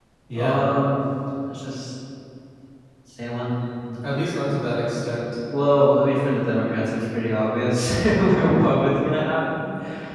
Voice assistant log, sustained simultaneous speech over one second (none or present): none